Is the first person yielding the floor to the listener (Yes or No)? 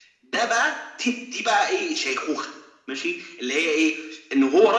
No